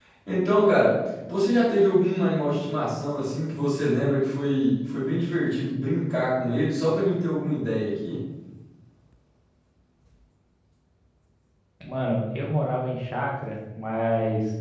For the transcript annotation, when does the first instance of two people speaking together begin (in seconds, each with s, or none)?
none